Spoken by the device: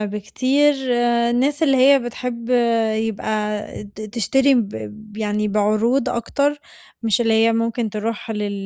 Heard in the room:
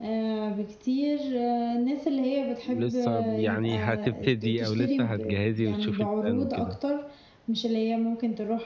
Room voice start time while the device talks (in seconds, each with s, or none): 2.7 s